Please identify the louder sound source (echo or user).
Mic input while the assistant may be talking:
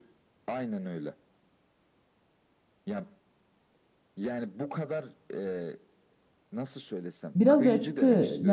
user